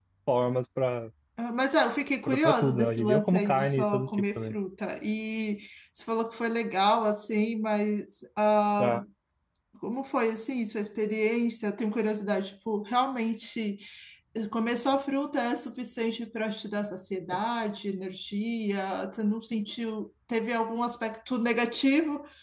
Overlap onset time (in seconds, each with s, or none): 2.3 s